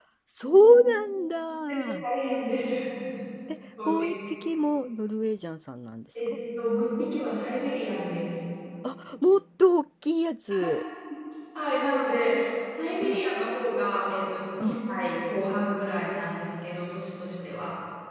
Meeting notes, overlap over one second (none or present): none